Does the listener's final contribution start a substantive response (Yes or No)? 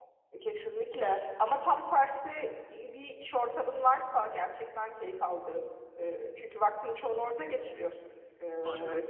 No